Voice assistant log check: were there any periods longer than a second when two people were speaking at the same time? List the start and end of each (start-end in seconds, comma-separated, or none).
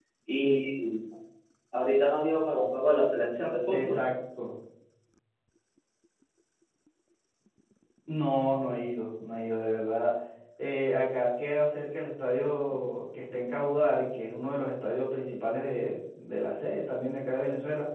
none